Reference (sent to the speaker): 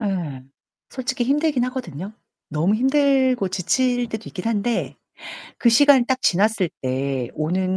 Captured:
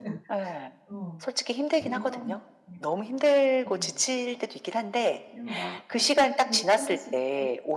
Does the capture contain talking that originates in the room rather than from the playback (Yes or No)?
Yes